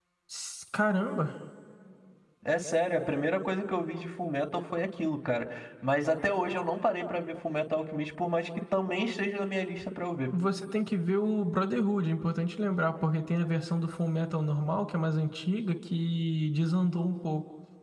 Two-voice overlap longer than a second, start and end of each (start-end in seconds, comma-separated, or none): none